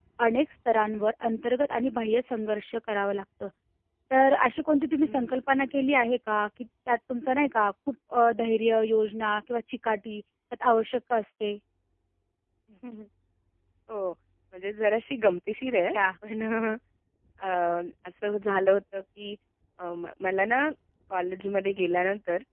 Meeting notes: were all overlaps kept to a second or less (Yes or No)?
Yes